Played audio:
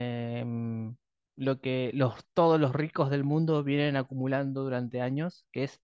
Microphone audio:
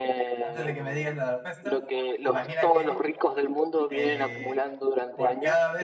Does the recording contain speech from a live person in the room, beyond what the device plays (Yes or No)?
Yes